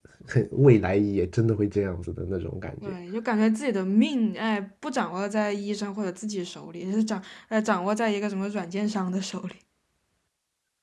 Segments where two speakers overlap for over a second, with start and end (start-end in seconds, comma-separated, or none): none